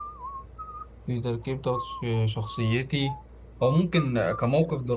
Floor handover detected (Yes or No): No